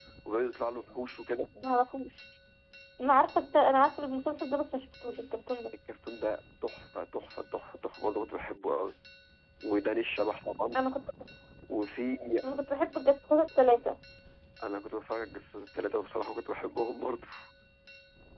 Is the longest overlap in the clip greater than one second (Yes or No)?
No